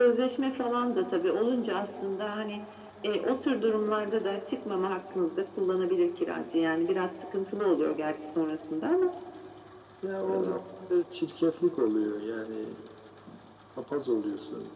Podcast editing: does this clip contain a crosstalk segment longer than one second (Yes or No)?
No